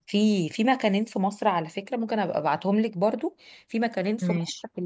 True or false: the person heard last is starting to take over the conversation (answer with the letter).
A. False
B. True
A